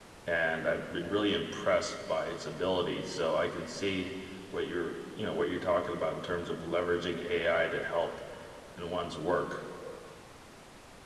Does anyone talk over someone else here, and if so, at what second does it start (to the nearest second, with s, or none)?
none